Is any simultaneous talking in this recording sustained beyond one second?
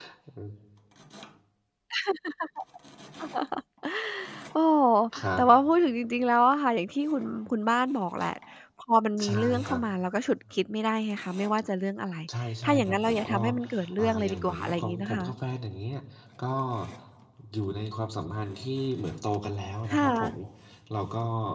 Yes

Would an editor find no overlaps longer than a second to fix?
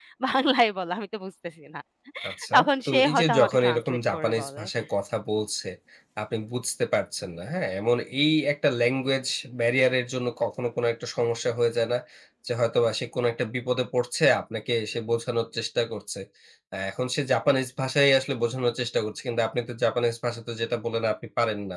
No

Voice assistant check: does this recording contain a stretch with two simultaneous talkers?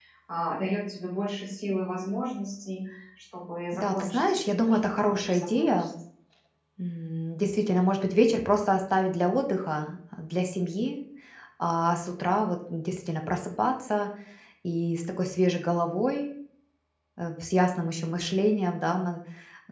Yes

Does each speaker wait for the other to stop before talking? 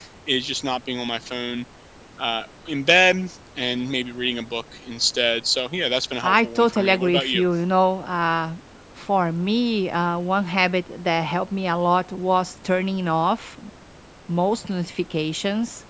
No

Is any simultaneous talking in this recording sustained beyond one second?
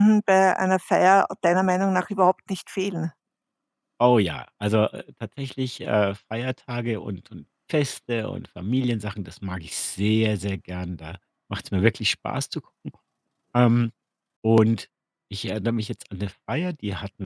No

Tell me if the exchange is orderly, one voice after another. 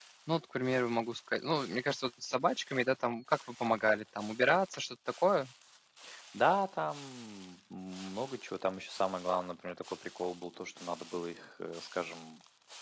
Yes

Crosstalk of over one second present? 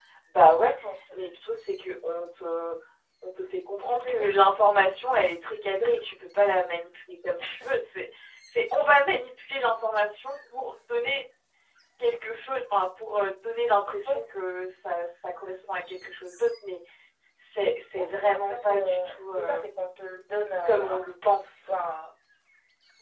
Yes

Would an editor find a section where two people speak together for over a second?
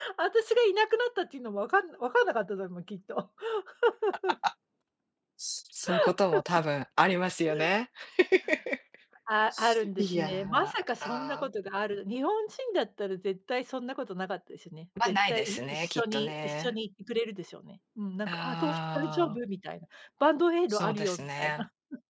Yes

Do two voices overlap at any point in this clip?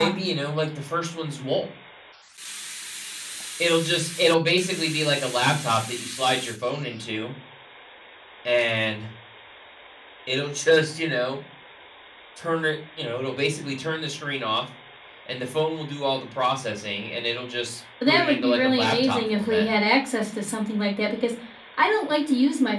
Yes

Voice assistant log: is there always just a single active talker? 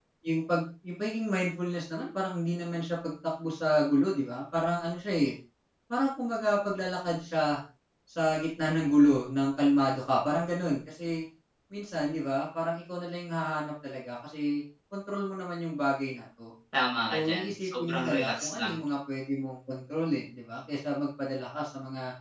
No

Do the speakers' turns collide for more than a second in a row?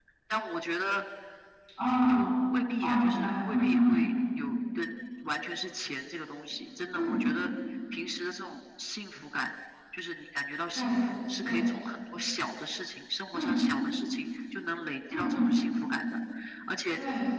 Yes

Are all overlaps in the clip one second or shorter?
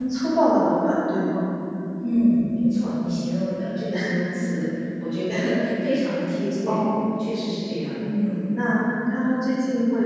Yes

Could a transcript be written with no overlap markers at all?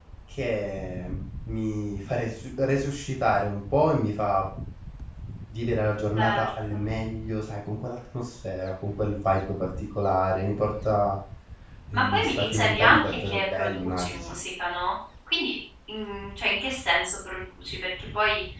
No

